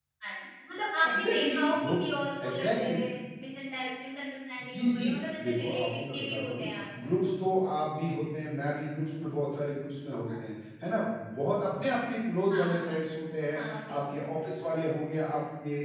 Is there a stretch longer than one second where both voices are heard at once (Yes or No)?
Yes